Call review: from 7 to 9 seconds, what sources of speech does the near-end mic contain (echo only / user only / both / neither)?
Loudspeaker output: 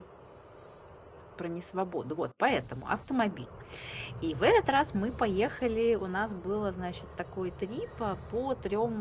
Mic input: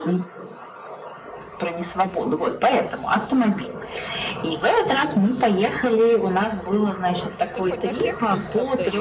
both